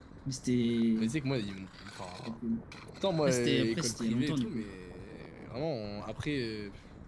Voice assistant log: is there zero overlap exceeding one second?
No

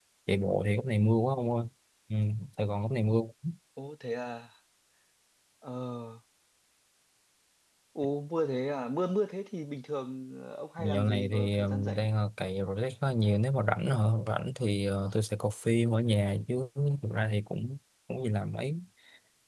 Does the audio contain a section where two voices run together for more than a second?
Yes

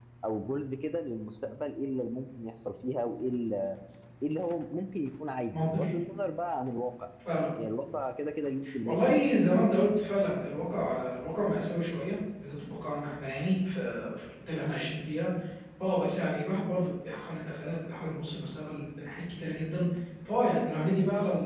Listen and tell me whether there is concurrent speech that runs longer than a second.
No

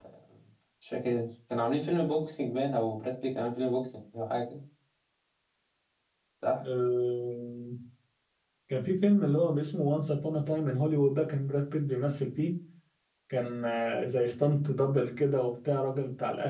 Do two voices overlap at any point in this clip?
No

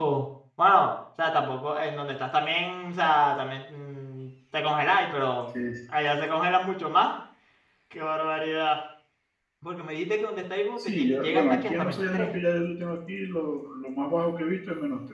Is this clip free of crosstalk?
No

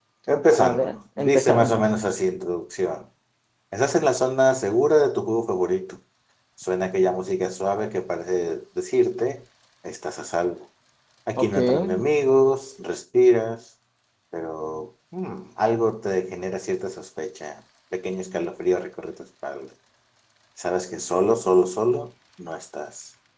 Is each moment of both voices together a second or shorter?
No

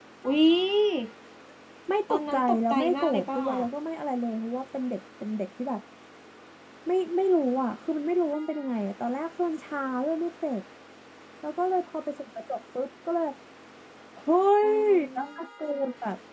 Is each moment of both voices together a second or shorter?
No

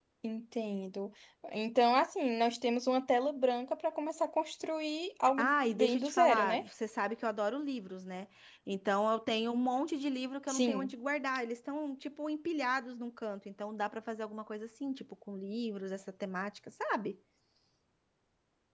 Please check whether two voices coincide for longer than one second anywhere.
Yes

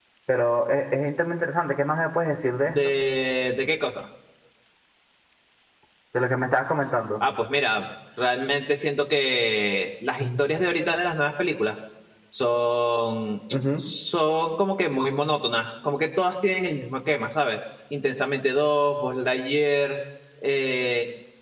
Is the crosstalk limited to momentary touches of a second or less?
Yes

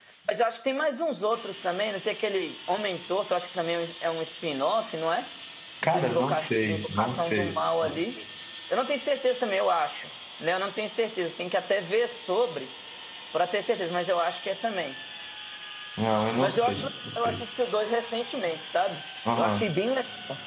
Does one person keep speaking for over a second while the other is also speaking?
Yes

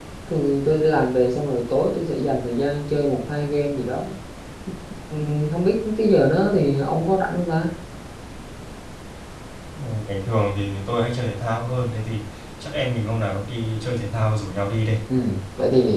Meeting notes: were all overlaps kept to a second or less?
Yes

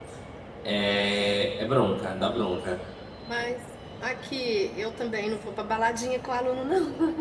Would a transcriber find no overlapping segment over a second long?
Yes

